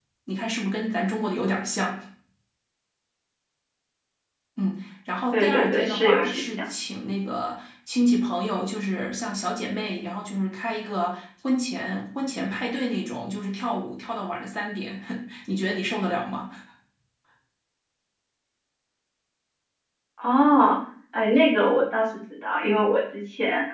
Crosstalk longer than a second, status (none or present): present